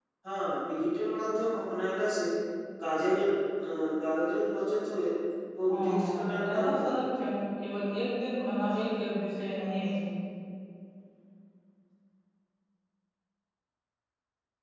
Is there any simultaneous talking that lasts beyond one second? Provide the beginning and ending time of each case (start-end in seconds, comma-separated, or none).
5.7-6.9